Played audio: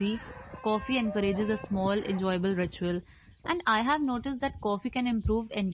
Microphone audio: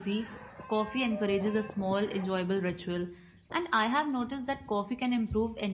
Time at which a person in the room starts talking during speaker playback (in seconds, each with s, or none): none